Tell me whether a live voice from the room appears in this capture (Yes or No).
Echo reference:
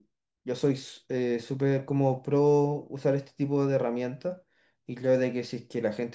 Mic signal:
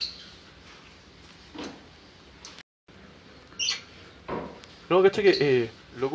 Yes